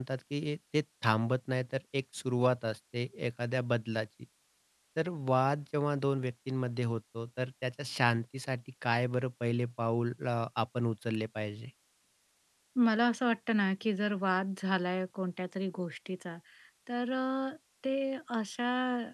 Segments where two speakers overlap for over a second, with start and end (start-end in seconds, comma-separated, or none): none